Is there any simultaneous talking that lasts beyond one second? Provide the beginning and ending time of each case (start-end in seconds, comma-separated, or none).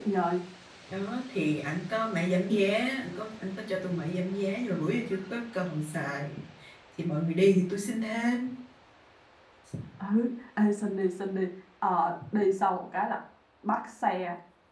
none